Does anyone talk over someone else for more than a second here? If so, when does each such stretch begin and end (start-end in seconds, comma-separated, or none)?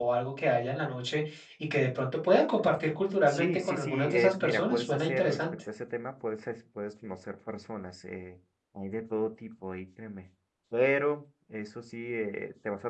3.3-5.4